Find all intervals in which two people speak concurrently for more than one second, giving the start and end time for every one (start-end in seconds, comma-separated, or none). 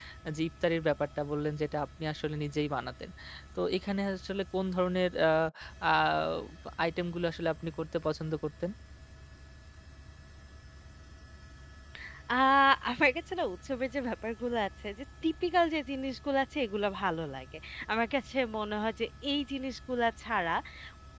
none